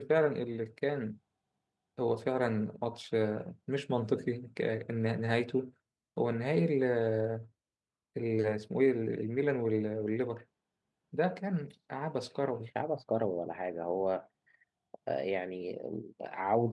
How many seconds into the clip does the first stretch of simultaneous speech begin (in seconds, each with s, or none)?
none